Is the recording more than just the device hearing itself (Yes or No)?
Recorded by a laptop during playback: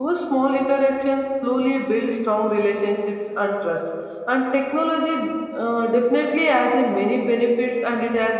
Yes